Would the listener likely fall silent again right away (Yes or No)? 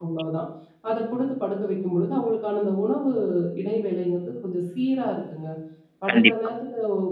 Yes